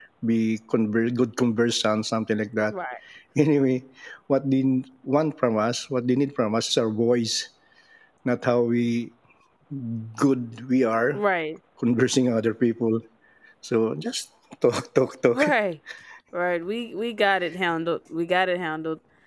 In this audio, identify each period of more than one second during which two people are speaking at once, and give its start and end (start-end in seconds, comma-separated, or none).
none